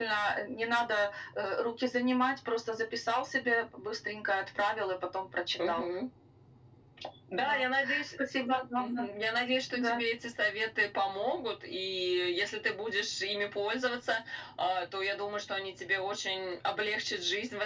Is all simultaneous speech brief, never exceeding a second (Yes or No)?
Yes